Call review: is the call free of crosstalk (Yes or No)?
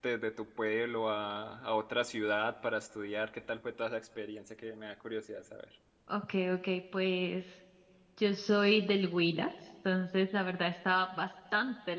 Yes